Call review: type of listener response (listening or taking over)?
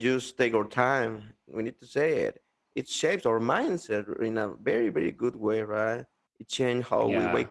listening